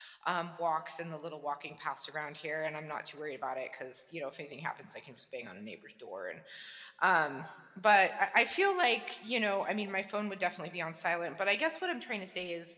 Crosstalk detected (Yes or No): No